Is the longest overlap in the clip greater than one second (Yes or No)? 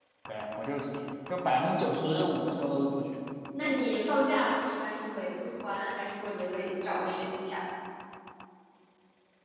No